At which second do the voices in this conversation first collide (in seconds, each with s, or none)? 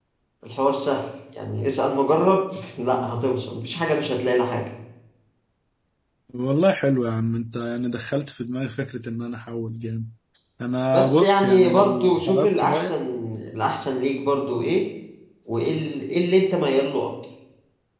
10.9 s